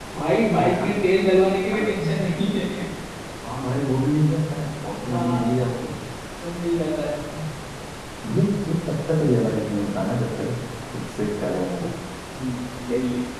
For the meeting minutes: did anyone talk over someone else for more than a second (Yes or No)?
Yes